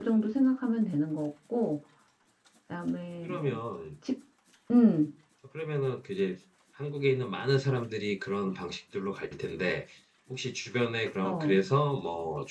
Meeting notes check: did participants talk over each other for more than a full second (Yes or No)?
No